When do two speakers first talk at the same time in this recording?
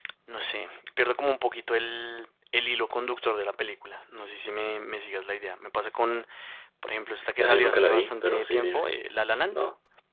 7.4 s

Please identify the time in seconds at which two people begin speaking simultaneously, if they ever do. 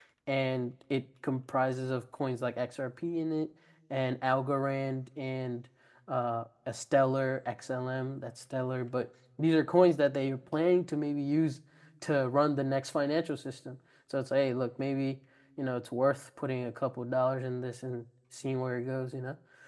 none

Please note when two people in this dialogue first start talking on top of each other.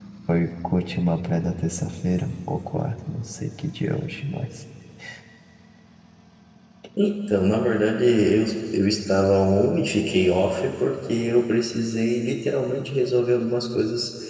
none

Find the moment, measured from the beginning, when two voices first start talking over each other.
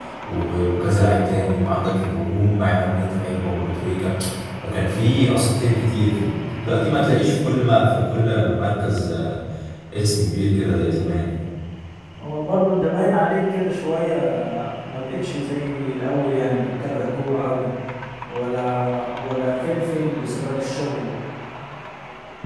none

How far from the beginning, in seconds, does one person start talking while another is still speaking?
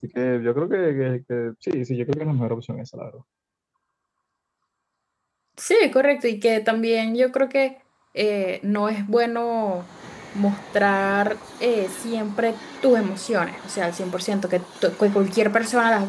none

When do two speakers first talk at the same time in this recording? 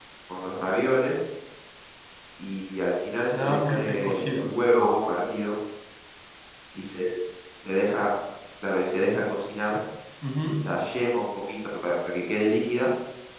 3.3 s

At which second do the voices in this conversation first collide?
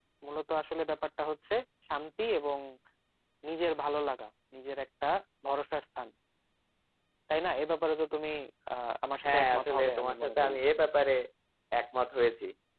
9.2 s

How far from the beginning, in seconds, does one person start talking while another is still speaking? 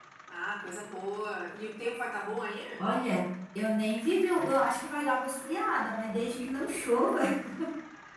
none

